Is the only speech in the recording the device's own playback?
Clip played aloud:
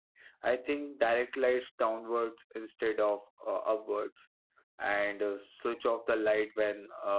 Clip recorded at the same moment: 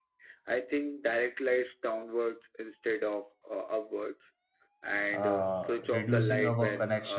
No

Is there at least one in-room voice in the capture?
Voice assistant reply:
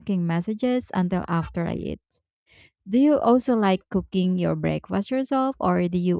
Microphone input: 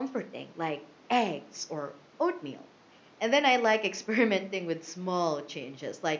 Yes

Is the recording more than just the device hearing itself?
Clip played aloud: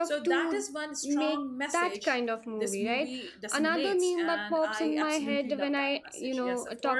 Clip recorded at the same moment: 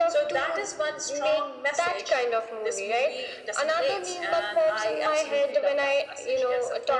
No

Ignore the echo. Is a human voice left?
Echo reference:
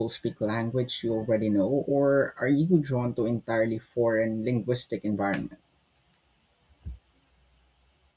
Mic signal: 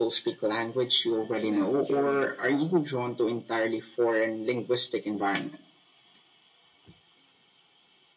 Yes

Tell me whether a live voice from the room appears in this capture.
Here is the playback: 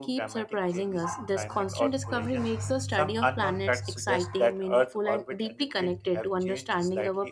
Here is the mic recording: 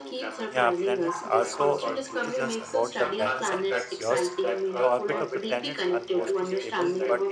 Yes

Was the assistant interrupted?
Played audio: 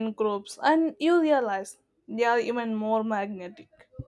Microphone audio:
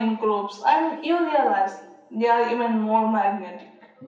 No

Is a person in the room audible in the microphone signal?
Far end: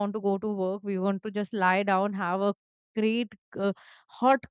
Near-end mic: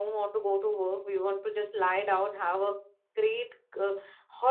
No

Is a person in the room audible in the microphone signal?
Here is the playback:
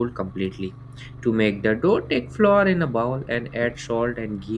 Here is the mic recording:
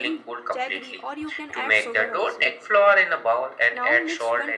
Yes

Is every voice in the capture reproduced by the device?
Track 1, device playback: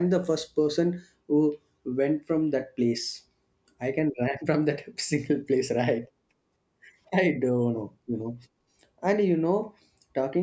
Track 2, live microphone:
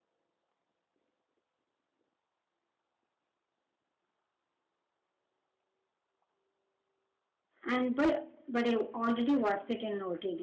No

